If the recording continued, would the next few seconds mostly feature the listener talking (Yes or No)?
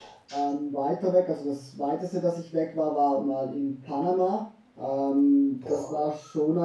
No